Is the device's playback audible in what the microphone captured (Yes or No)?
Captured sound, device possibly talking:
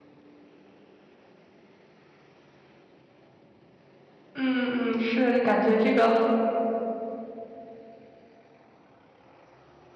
No